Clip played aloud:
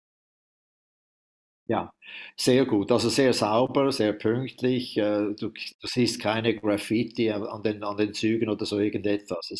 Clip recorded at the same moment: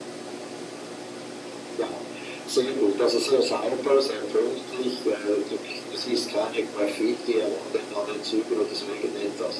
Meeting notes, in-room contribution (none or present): none